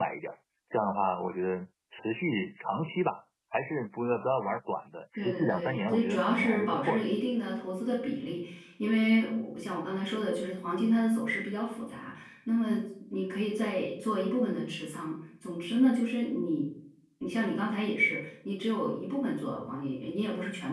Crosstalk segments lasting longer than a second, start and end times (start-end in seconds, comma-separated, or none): 5.2-7.0